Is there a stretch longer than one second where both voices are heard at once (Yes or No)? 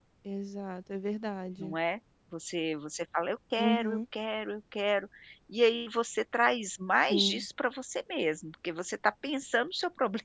No